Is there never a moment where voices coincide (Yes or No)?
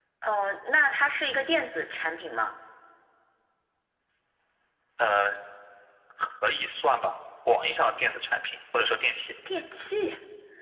Yes